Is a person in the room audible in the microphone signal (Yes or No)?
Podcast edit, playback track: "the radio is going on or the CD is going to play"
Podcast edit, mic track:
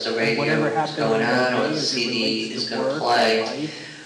Yes